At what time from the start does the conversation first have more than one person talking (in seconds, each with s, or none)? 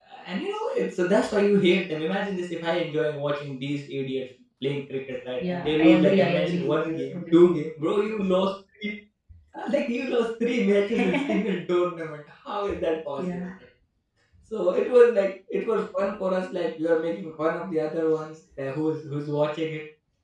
5.4 s